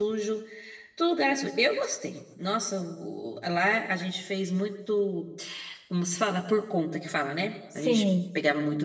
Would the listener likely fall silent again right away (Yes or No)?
Yes